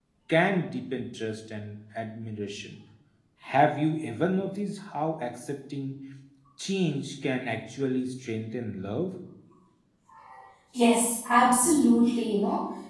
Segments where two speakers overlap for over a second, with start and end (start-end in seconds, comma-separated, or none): none